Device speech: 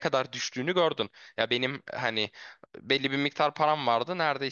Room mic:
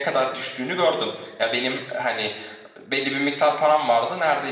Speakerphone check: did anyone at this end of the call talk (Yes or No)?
No